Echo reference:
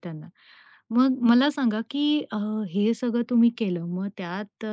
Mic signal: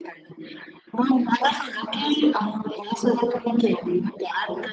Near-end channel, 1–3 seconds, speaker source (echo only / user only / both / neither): echo only